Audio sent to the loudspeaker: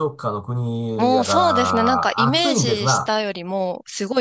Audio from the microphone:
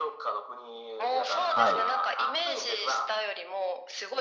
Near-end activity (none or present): present